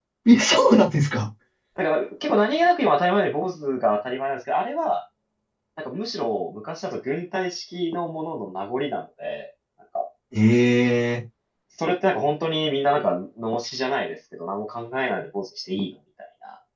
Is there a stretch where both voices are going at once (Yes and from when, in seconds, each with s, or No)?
No